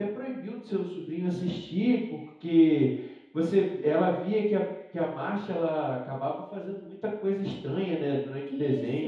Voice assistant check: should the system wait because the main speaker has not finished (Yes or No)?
No